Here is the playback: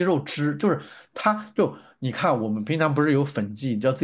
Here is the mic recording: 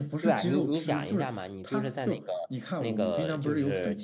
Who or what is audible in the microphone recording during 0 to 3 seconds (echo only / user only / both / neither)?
both